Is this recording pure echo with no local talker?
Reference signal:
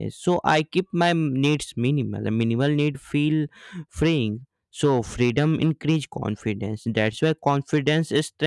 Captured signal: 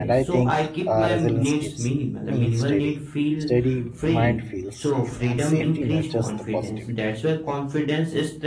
No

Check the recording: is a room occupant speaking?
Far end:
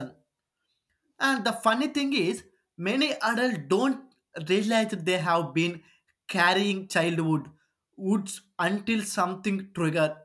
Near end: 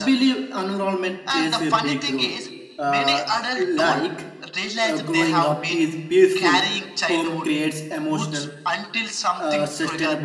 Yes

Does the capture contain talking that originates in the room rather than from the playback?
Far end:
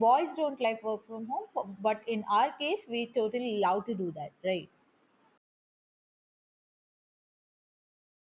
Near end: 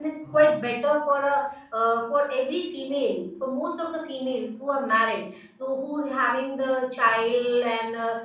Yes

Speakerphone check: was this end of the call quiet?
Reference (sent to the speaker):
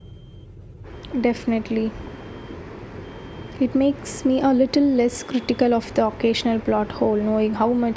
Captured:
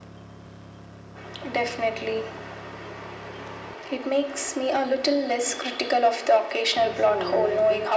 No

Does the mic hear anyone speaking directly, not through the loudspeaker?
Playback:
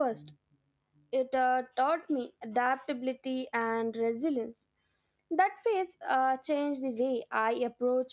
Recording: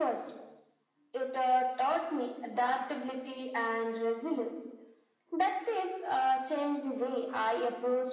No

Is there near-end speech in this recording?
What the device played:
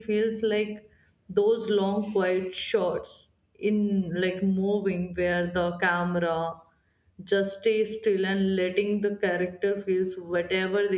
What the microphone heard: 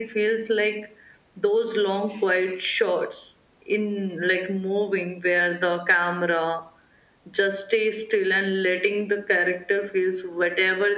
No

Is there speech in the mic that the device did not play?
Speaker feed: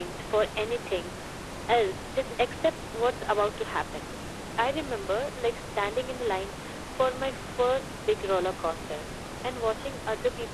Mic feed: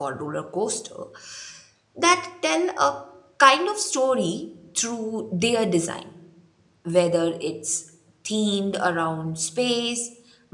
Yes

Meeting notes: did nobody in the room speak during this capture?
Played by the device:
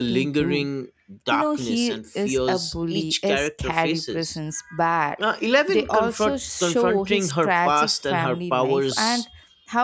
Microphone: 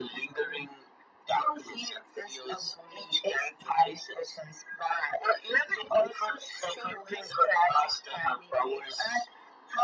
Yes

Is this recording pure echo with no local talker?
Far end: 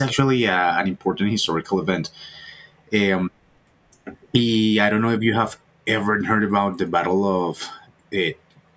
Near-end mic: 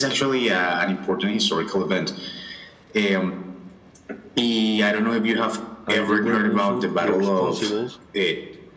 No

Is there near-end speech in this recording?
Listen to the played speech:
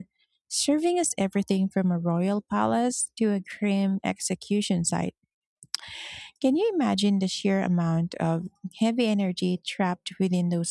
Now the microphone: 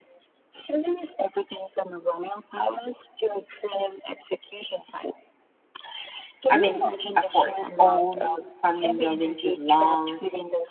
Yes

